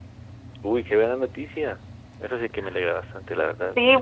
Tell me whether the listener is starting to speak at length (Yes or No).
Yes